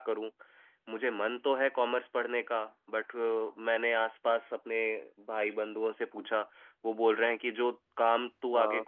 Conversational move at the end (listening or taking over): listening